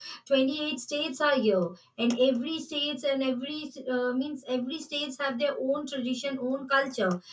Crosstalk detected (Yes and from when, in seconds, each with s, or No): No